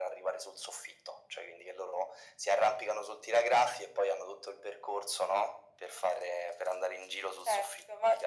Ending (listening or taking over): taking over